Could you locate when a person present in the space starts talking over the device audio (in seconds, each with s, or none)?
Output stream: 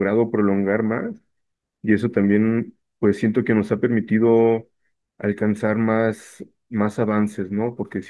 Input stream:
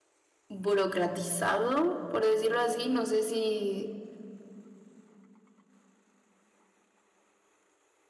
0.5 s